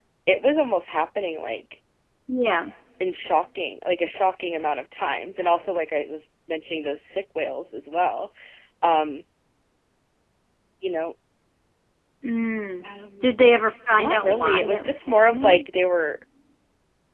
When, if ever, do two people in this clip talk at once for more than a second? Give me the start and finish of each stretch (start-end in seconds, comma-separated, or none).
13.9-15.6